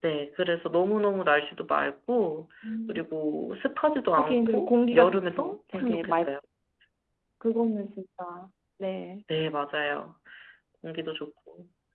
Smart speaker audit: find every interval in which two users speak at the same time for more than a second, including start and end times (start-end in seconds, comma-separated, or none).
4.2-6.3